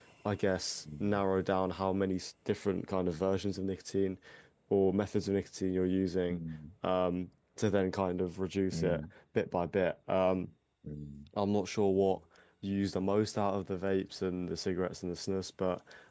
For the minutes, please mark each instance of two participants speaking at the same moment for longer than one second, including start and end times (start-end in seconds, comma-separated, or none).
none